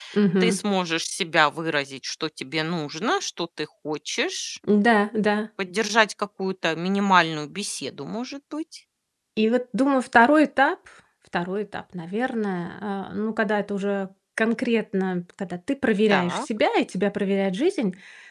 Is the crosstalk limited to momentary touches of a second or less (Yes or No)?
Yes